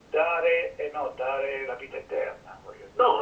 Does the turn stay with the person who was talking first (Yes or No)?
No